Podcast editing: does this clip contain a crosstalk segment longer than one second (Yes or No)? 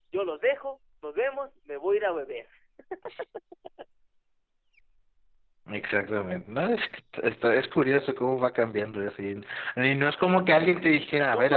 No